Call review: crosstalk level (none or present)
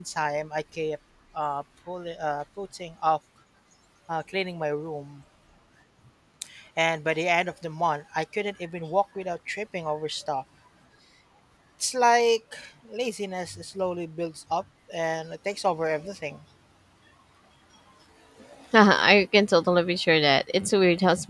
none